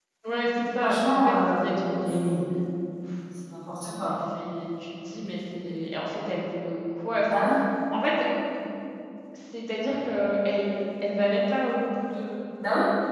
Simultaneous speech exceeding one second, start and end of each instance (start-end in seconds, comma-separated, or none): 0.8-2.4